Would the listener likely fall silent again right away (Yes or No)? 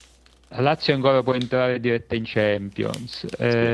Yes